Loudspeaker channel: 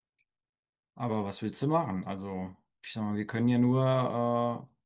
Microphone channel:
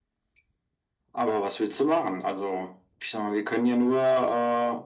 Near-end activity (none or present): none